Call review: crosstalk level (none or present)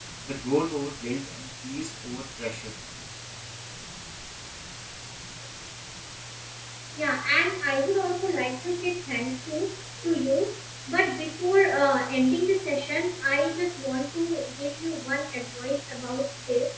none